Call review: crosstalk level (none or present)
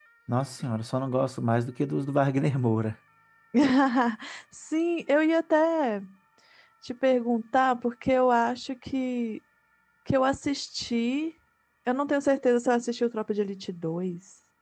none